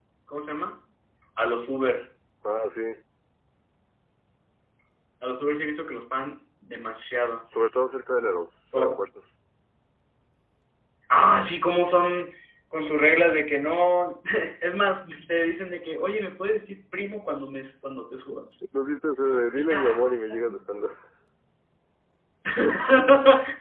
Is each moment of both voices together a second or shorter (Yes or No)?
Yes